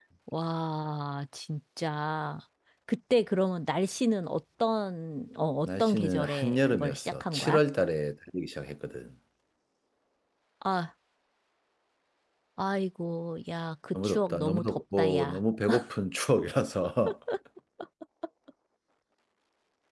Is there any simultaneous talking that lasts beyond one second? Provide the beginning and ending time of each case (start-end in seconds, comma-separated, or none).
5.7-7.6, 14.0-15.4